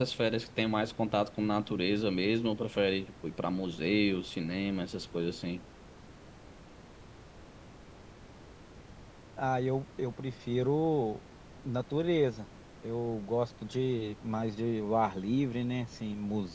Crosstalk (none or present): none